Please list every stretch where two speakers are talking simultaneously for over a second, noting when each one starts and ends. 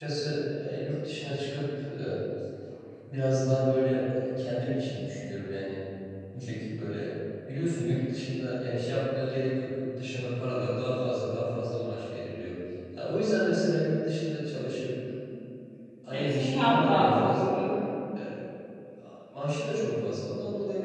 16.1-17.8

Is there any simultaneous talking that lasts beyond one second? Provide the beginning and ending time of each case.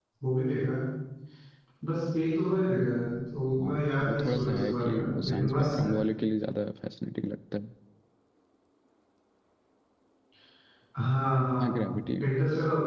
4.1-5.9

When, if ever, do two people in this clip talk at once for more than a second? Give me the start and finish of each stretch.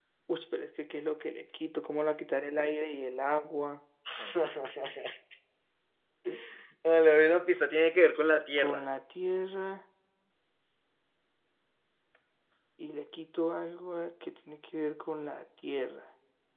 none

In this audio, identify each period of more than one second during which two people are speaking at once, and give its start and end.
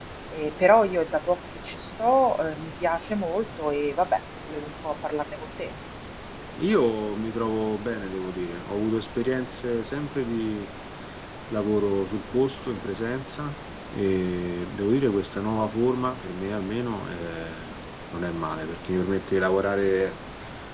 none

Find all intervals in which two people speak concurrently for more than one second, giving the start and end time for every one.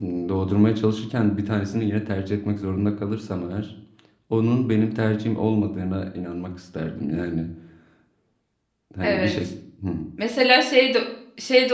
none

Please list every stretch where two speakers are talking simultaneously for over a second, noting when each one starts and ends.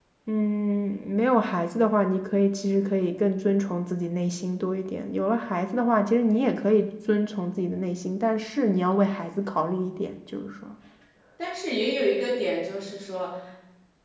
none

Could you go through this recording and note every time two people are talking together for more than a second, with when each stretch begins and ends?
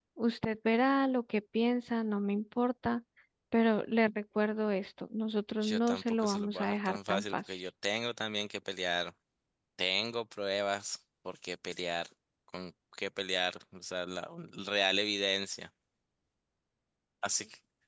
5.6-7.4

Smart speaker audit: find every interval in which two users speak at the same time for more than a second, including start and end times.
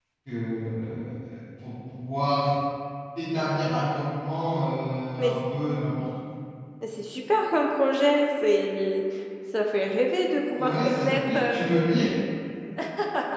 10.5-12.0

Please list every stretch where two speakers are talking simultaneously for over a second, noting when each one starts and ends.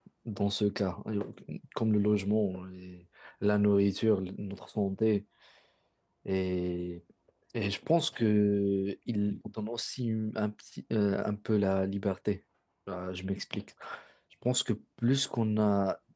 none

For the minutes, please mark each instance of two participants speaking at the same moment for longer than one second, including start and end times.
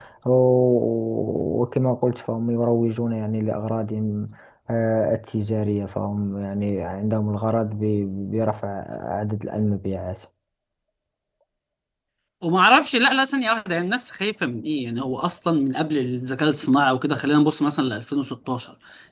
none

